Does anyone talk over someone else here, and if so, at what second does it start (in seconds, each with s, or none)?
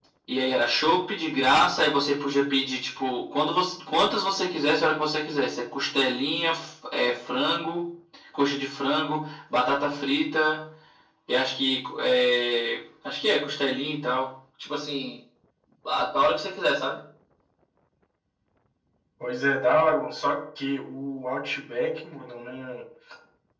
none